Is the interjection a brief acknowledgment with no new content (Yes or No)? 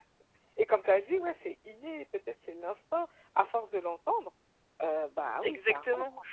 No